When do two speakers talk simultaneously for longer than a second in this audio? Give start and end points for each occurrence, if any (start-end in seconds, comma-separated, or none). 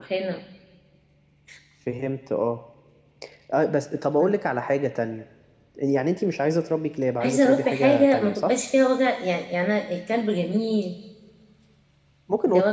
7.2-8.5